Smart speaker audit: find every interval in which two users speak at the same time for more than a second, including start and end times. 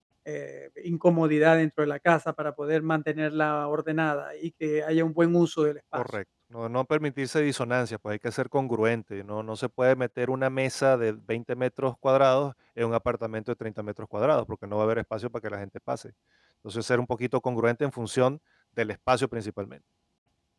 none

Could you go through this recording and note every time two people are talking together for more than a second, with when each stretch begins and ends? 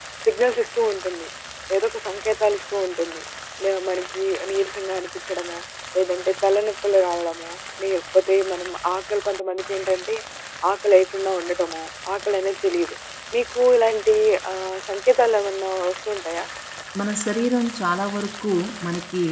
none

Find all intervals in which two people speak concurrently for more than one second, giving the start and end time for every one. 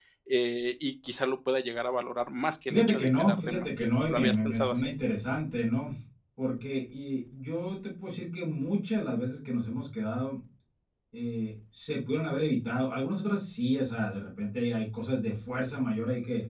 2.7-4.9

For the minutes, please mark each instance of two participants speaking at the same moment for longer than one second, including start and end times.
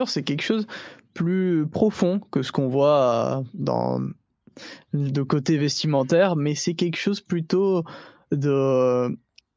none

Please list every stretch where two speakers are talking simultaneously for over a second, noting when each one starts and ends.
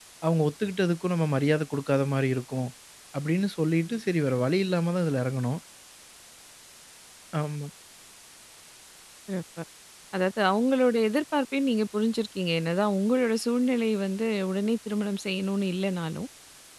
none

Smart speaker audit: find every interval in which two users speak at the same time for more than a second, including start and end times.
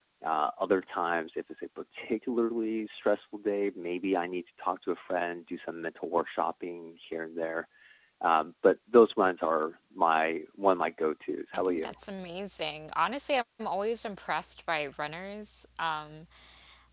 none

